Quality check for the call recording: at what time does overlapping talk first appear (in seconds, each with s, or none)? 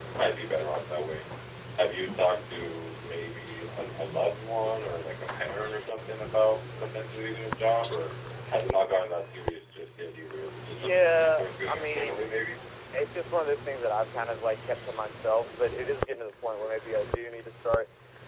10.7 s